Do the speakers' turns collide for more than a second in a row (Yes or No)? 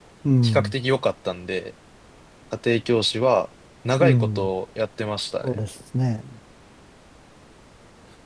No